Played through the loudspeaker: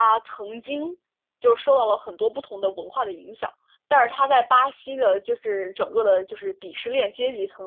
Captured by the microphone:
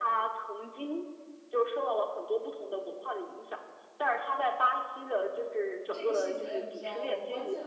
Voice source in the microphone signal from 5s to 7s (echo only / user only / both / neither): both